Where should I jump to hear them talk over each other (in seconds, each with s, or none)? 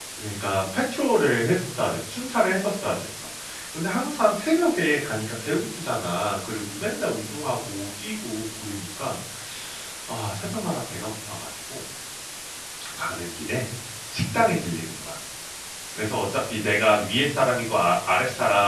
none